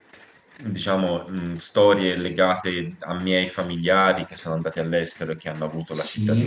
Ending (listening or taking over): taking over